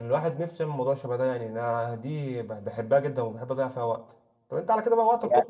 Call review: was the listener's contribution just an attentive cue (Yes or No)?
Yes